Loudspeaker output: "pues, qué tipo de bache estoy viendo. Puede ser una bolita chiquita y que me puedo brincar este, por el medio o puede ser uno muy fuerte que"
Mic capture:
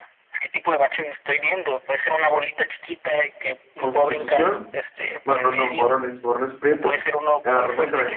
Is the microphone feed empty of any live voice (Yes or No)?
No